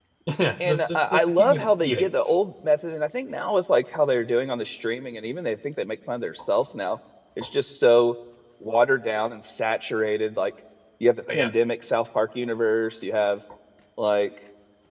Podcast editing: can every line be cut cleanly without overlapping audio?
No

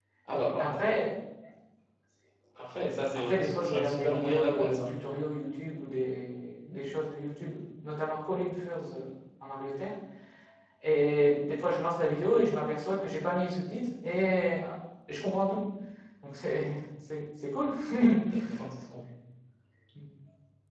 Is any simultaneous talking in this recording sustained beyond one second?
Yes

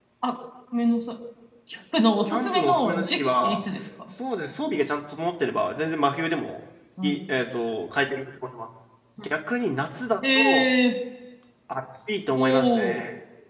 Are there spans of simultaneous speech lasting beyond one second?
Yes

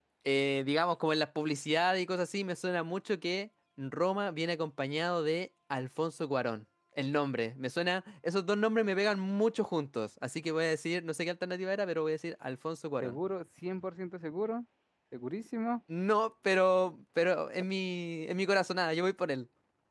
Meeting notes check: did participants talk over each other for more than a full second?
No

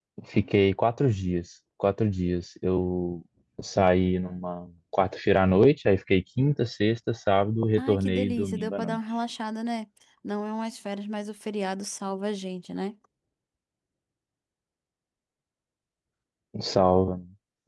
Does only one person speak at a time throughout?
No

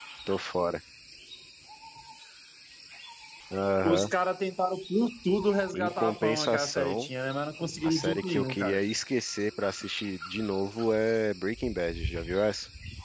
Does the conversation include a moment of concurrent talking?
Yes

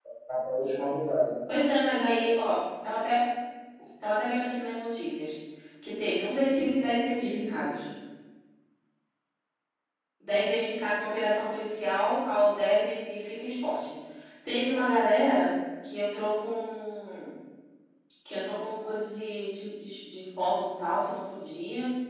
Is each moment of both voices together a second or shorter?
Yes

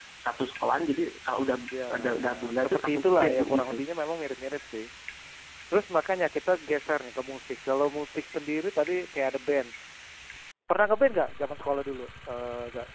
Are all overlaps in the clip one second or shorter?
No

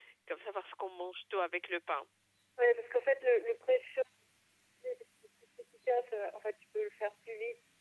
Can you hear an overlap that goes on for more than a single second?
No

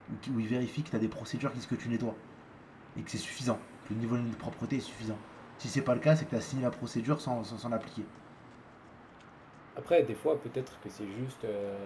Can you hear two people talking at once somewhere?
No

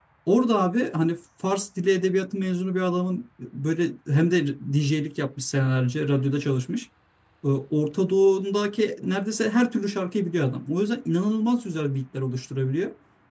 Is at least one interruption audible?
No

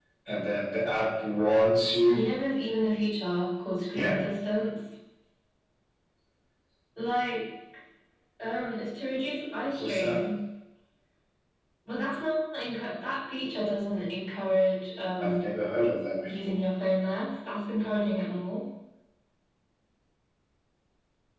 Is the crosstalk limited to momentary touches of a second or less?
Yes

